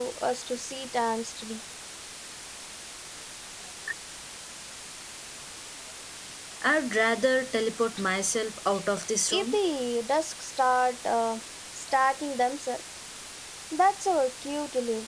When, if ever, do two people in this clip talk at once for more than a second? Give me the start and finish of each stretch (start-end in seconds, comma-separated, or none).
none